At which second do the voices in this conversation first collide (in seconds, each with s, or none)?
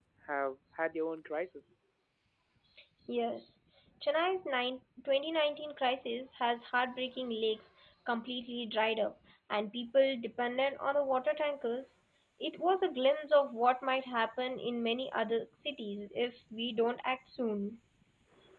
none